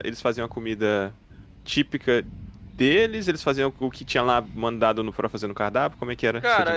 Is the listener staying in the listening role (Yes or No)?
No